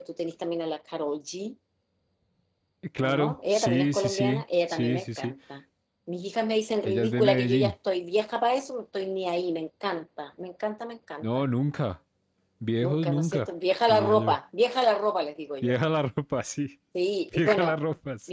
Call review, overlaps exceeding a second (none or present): present